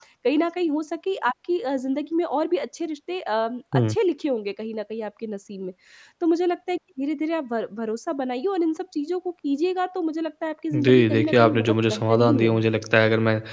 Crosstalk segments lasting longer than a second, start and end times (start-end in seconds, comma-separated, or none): 10.7-12.7